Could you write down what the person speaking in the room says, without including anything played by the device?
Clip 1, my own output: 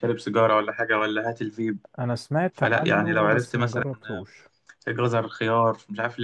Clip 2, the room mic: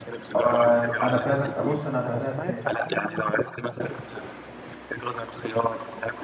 آه، انا فعلا ابص انا بدات

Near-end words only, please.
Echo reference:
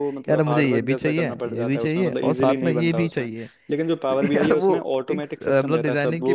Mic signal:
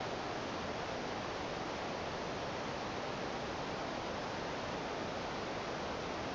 none

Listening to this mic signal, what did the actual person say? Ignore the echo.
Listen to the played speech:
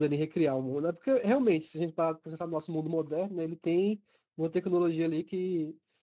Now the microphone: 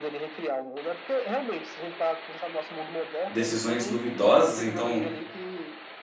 decisões duvidosas, então

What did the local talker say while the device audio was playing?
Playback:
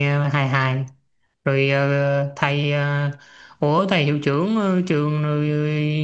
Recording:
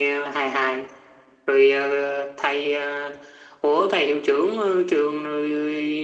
none

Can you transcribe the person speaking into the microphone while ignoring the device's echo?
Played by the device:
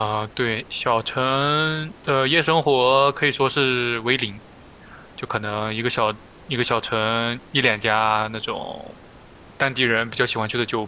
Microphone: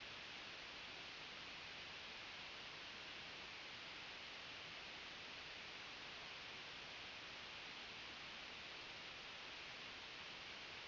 none

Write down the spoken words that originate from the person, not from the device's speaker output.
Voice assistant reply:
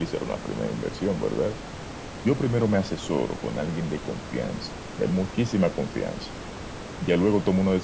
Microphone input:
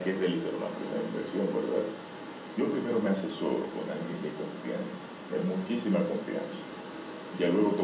none

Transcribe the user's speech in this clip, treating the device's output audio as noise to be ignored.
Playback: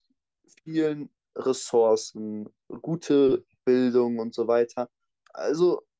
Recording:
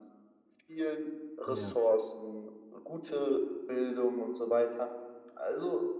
Ja,

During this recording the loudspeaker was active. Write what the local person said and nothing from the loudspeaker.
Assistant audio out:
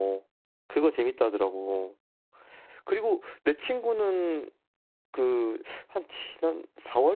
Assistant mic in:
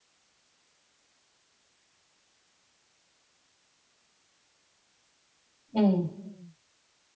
음,

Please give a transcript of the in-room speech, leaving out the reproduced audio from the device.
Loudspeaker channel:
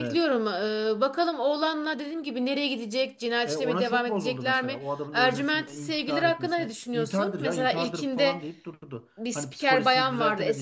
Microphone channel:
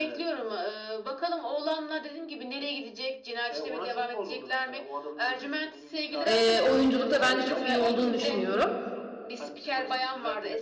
e, oyunculukta bence çok iyi olduğunu düşünüyorum.

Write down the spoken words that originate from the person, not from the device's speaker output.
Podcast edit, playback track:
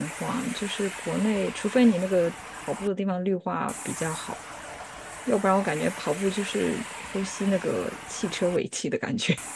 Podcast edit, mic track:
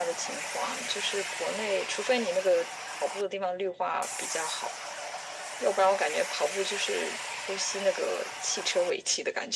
none

